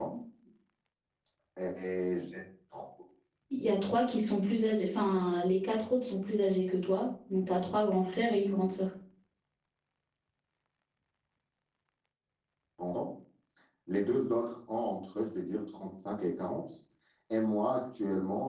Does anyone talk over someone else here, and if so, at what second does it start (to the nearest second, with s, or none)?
none